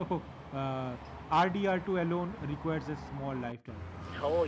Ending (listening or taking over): taking over